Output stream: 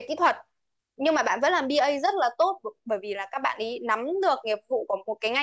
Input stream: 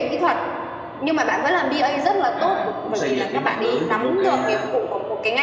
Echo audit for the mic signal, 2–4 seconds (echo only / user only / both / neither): both